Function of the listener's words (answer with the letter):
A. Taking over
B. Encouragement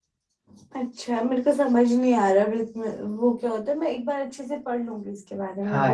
A